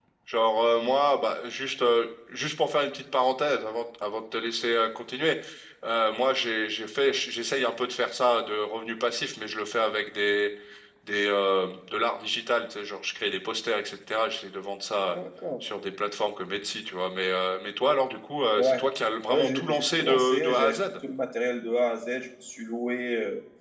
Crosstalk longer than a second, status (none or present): present